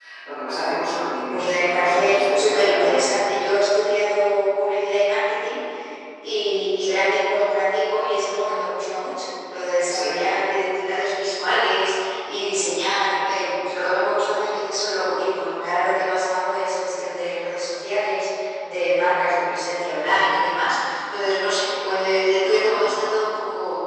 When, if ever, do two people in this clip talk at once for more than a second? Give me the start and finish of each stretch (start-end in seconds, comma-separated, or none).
1.3-3.1